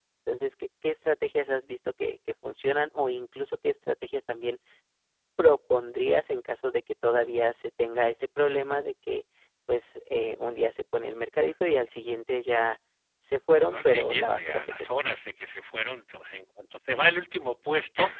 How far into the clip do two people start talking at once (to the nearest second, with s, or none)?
14 s